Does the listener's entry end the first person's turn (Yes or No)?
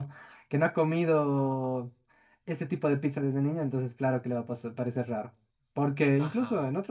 No